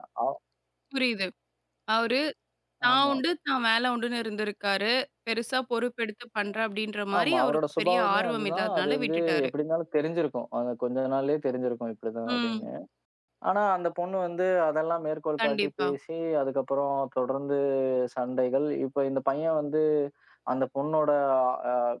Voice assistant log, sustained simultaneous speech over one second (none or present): present